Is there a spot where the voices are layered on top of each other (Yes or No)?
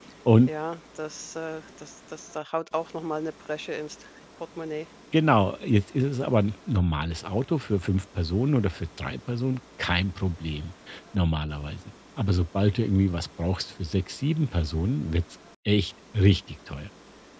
No